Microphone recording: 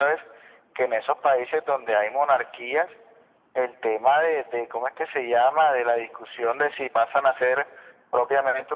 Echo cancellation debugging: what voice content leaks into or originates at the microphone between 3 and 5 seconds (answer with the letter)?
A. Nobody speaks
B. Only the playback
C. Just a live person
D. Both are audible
B